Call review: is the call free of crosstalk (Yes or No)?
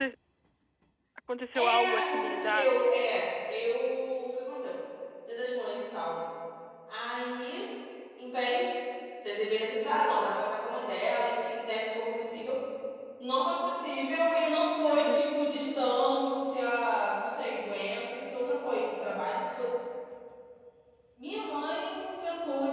No